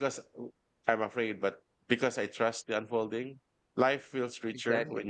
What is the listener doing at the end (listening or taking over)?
listening